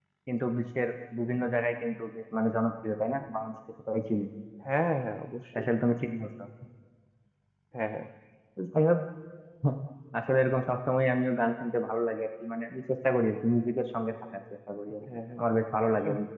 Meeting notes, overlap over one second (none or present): none